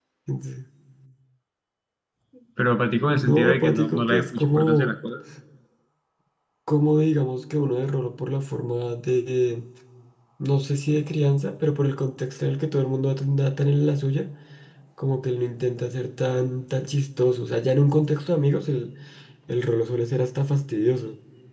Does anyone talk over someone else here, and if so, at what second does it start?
3.1 s

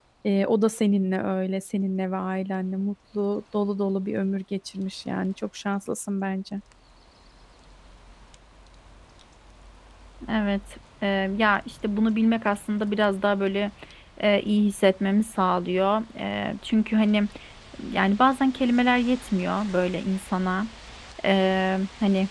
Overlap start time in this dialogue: none

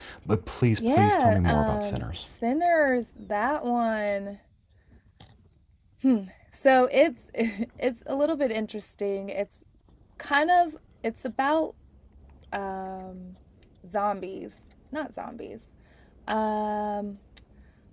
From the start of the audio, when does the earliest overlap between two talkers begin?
0.8 s

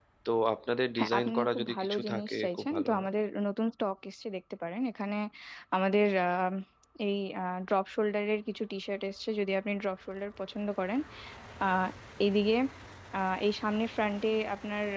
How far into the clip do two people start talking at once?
1.0 s

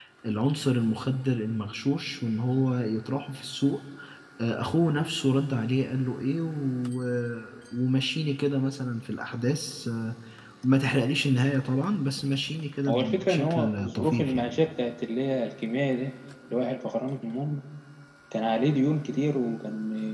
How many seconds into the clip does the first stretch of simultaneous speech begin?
12.9 s

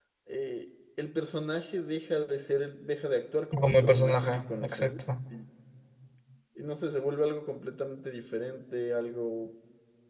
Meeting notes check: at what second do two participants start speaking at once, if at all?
3.5 s

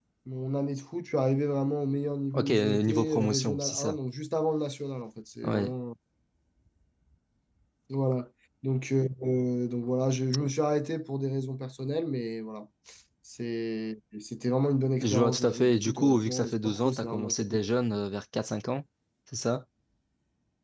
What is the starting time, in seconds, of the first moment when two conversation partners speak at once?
2.3 s

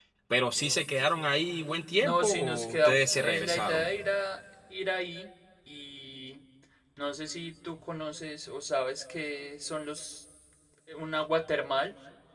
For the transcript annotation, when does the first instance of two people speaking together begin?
2.0 s

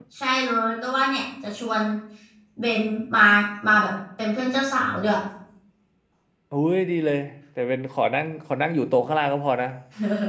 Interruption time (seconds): none

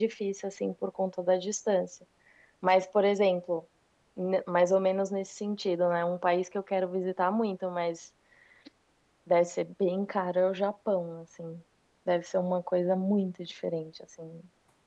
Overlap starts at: none

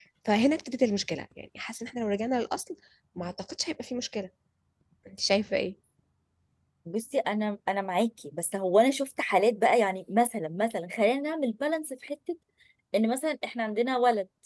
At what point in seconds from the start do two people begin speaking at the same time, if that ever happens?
none

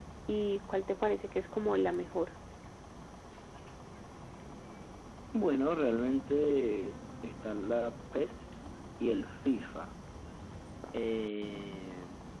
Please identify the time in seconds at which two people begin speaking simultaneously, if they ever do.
none

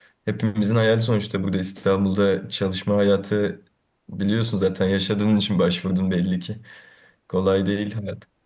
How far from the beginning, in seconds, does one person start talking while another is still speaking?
none

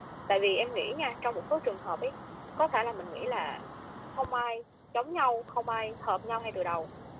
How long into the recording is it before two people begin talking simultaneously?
none

